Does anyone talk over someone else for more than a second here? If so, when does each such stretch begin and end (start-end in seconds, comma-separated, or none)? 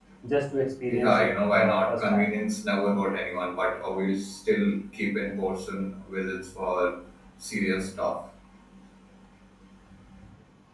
0.9-2.2